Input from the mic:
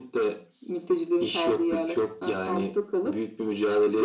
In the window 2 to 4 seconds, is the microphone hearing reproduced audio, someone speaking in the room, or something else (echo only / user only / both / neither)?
echo only